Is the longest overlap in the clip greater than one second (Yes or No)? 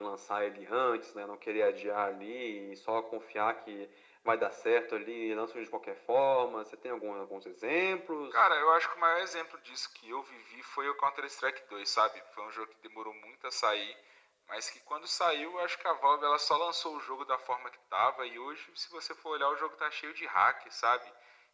No